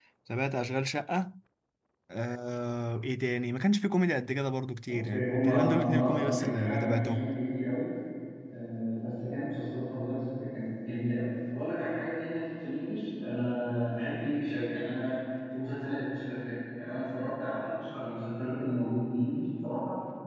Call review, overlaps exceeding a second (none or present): present